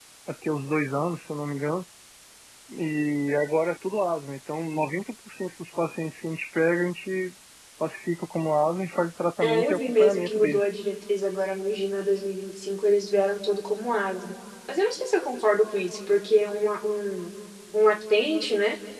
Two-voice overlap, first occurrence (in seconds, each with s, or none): 9.4 s